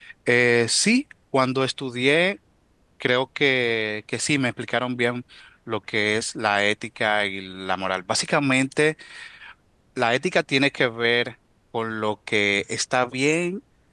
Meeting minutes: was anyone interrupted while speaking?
No

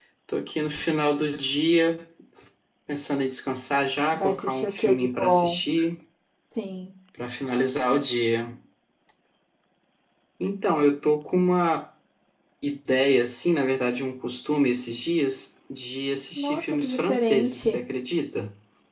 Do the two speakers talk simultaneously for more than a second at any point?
Yes, from 4.1 s

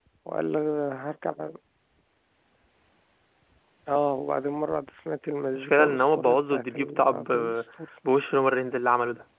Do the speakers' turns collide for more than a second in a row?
Yes, from 5.5 s

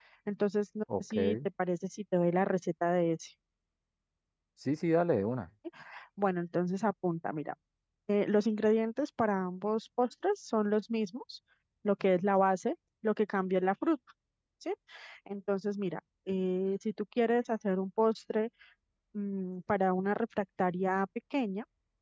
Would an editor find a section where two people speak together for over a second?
No

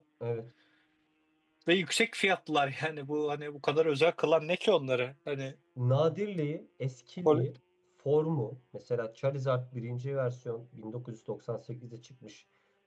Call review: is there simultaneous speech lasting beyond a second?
No

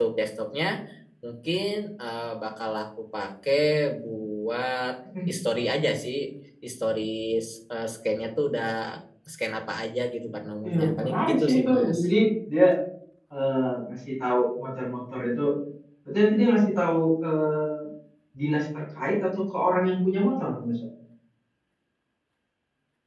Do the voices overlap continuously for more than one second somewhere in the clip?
Yes, from 10.6 s

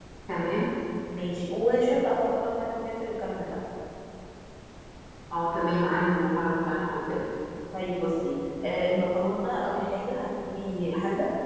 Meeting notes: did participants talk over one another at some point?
No

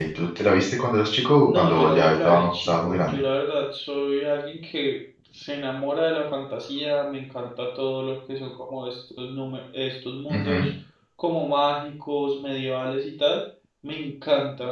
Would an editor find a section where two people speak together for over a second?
Yes, from 1.4 s

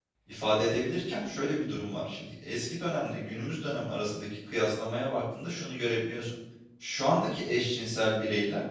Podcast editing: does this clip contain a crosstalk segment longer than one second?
No

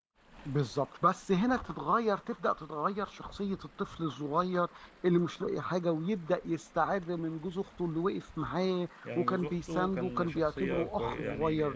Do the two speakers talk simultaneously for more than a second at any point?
Yes, from 9.0 s

